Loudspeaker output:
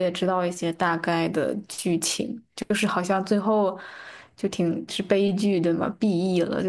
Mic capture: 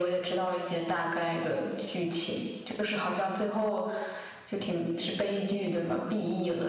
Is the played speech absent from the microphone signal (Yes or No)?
No